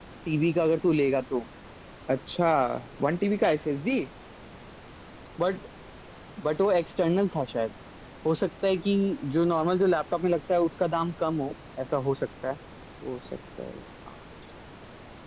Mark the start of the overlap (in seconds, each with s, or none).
none